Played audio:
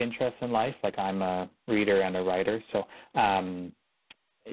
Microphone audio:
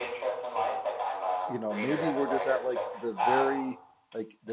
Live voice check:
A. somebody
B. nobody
A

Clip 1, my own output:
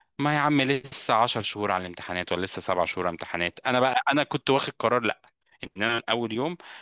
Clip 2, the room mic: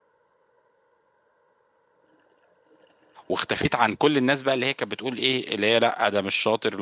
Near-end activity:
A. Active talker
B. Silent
A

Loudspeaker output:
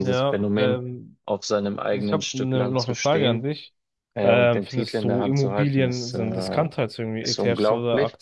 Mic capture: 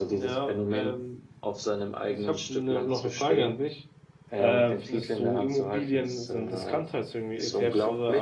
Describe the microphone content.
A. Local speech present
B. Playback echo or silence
B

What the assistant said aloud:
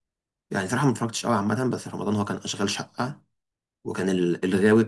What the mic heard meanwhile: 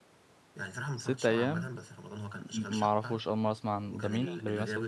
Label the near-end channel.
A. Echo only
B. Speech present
B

